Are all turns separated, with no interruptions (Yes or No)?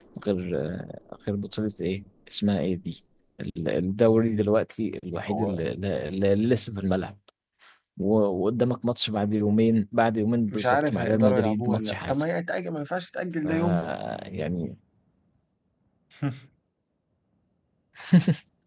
No